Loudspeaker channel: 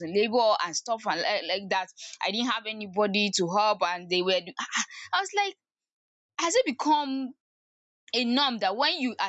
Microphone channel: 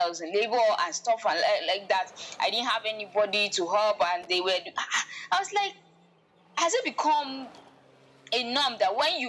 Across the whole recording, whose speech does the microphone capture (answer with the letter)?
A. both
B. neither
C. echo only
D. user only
C